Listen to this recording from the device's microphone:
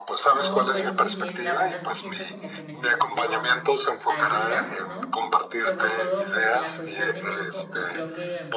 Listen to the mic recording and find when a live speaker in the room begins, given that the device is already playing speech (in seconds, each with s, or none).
0.3 s